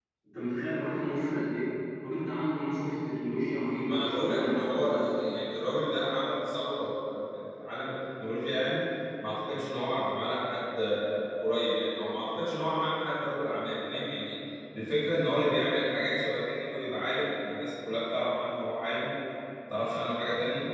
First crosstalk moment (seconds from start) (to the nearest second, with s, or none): 4 s